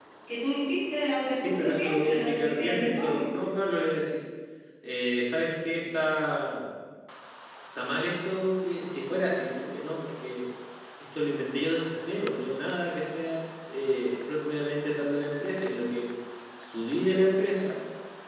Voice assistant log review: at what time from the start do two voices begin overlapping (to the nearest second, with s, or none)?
1 s